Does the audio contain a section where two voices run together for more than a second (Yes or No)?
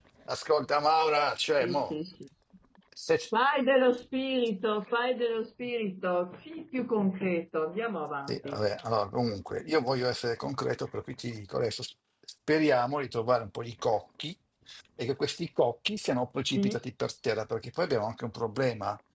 No